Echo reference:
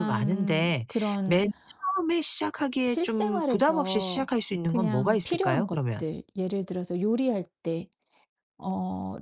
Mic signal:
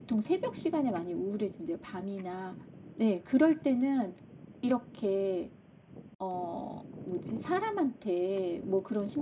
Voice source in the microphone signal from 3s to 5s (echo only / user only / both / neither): user only